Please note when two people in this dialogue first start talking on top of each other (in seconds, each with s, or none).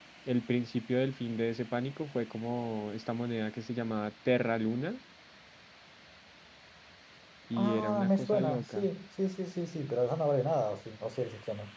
7.6 s